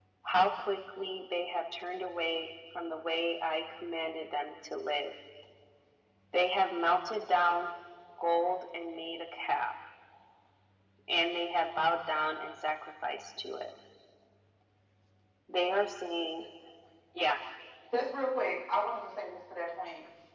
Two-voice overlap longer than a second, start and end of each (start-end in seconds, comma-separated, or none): none